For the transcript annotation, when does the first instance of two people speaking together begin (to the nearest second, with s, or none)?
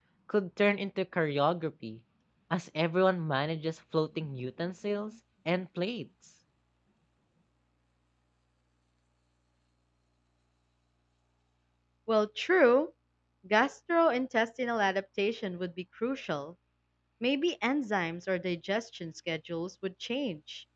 none